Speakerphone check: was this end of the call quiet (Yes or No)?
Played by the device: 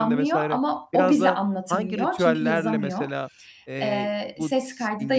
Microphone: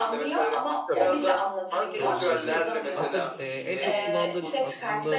No